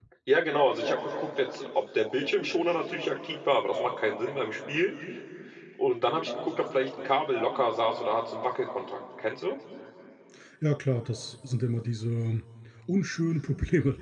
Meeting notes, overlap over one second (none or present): none